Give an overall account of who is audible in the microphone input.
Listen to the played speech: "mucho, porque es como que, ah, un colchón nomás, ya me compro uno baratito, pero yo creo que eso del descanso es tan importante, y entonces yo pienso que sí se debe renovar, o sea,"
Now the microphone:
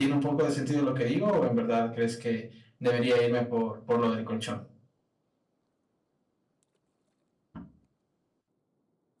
user only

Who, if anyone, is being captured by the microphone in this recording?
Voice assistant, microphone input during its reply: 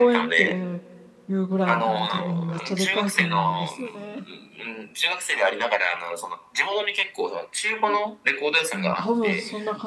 both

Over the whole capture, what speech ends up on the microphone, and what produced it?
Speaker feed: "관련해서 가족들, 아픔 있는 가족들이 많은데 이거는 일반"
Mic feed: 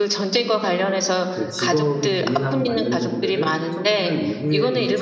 both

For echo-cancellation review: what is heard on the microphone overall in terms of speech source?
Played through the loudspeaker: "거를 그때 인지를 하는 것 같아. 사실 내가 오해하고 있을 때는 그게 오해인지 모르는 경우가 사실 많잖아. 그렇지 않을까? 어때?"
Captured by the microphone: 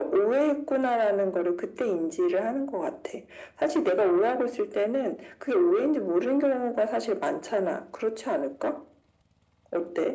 echo only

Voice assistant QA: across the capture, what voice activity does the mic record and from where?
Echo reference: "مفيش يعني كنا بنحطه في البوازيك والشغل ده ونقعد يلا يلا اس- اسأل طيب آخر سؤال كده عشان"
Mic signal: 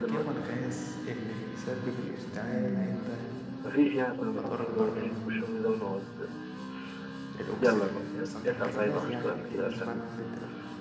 both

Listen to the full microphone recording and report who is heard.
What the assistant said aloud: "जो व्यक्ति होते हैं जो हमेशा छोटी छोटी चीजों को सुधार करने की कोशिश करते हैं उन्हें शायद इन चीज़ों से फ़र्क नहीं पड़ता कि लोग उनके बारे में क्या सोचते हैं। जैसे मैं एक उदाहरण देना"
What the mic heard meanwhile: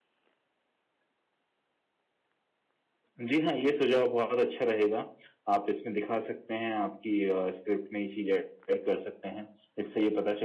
user only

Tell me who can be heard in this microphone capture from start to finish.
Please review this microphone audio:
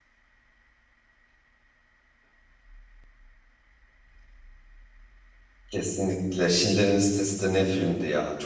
user only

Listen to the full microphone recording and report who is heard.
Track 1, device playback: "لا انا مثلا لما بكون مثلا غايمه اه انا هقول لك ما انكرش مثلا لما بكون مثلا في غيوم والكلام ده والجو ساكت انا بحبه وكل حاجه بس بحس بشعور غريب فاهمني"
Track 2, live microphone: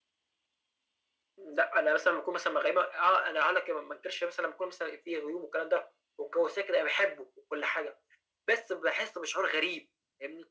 echo only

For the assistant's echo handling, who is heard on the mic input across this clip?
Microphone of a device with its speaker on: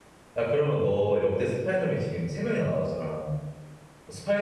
user only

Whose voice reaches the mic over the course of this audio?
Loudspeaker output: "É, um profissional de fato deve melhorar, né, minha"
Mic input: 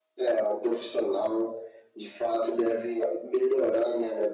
echo only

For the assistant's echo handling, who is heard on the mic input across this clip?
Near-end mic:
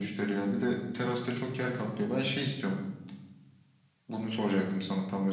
echo only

